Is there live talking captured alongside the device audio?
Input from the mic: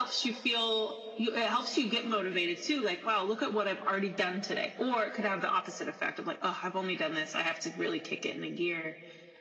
No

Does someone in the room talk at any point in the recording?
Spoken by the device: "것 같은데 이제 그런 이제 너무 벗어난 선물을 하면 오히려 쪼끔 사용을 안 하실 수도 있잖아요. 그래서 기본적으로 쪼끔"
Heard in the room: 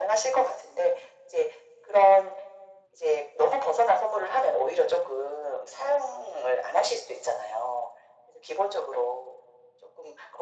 No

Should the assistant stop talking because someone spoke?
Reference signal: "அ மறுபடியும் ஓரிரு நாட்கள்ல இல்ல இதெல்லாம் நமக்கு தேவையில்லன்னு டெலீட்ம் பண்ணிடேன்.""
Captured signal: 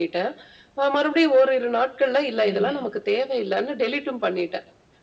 Yes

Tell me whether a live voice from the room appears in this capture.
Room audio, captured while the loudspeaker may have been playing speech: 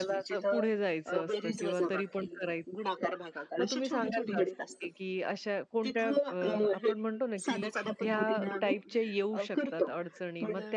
Yes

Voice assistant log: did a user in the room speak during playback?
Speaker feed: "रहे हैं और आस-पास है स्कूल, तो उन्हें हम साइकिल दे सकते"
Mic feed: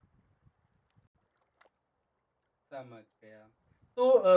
Yes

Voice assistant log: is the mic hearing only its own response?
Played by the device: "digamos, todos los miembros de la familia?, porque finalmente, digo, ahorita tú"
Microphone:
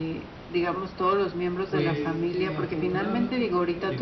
No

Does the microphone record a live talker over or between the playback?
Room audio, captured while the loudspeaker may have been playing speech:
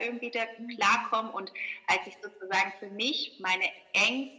Yes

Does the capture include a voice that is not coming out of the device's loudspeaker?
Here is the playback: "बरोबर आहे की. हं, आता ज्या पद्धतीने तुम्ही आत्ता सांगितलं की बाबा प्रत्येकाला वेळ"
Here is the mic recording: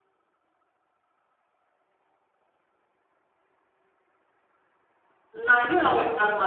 Yes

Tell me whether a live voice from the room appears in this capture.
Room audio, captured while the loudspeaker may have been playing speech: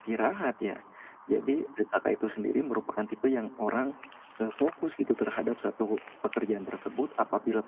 No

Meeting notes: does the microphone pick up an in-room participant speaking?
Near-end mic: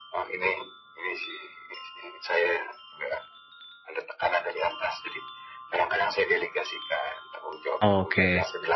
Yes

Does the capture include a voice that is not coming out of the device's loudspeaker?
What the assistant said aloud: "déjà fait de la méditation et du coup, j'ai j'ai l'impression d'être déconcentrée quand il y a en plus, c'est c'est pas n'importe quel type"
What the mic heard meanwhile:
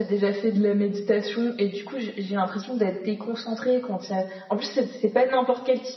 No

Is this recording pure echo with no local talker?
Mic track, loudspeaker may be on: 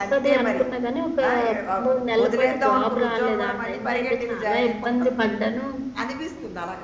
No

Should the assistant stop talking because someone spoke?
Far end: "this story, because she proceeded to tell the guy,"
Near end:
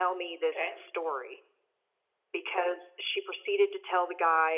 Yes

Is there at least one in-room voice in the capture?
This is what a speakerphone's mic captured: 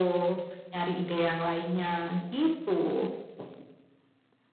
No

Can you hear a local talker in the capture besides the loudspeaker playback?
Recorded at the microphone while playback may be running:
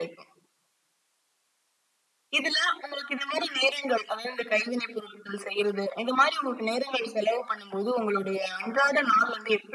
No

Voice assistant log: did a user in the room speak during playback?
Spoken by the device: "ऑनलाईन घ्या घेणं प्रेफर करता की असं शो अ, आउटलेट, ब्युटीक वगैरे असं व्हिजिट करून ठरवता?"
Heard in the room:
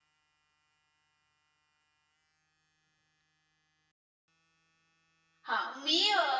Yes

